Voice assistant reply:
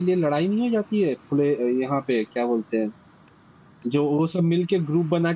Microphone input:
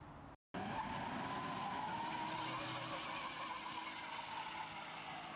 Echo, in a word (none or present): none